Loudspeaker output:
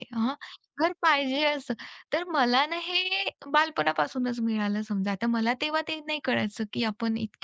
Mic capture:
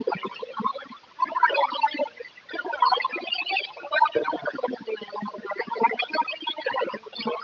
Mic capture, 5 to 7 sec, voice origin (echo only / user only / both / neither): echo only